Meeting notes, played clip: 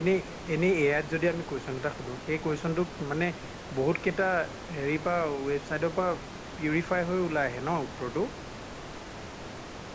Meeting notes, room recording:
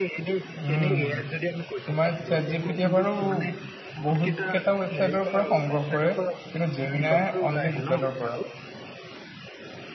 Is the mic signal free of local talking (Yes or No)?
No